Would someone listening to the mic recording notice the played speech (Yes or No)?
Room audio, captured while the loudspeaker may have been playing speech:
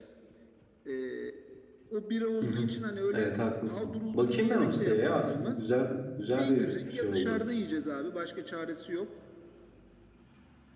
Yes